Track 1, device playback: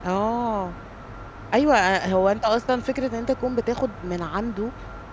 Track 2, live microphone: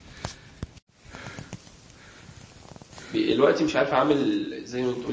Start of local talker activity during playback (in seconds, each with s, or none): 3.1 s